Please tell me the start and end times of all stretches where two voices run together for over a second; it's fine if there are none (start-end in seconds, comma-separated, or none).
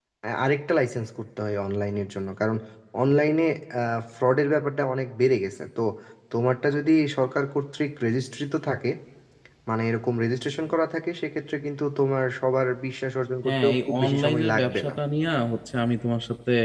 13.4-14.9